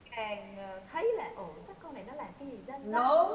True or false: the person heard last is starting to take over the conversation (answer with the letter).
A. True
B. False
A